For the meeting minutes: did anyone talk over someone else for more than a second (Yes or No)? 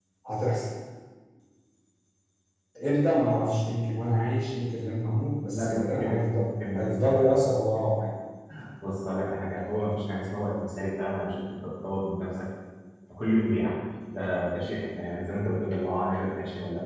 Yes